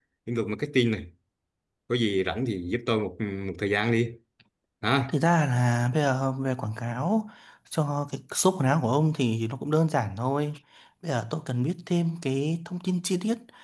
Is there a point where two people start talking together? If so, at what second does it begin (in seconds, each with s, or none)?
none